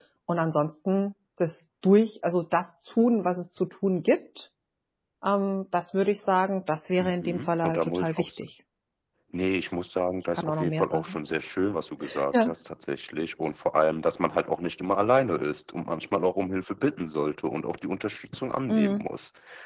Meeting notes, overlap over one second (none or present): present